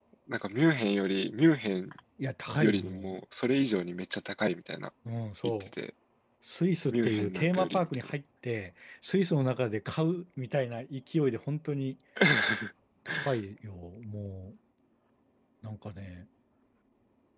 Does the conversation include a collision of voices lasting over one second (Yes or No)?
Yes